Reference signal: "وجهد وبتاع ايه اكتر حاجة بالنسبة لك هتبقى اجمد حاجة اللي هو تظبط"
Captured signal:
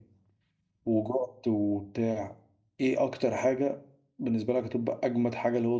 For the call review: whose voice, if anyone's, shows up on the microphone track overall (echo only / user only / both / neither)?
echo only